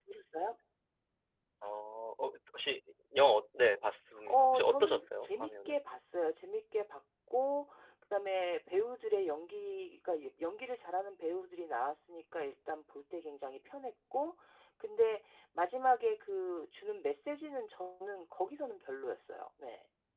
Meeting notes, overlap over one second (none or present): present